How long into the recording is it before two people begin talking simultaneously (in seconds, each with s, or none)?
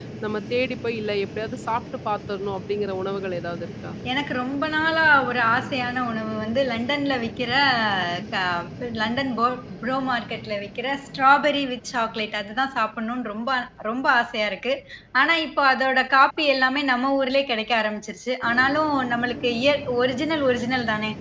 none